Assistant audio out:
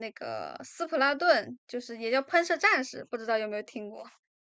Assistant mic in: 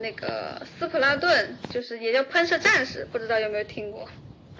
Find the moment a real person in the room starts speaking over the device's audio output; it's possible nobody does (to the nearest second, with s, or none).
none